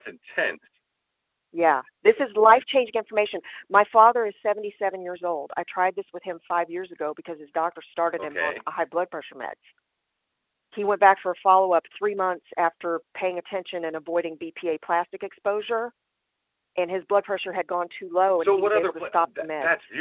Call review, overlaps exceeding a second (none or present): present